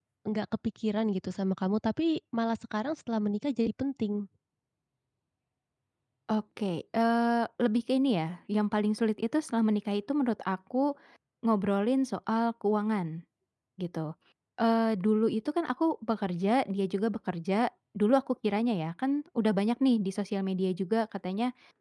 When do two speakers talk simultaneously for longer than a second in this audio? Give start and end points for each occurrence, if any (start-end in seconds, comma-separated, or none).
none